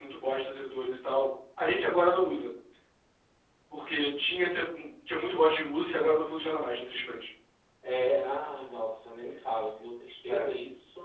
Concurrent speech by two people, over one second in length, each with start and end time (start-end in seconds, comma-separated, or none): none